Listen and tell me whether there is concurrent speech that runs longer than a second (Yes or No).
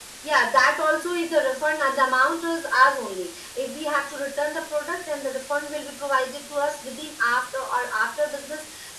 No